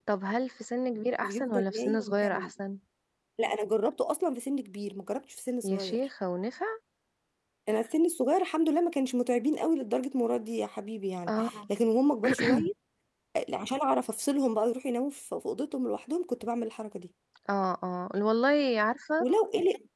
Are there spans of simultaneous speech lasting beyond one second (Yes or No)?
Yes